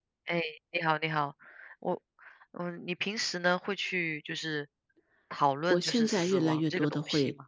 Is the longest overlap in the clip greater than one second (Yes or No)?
Yes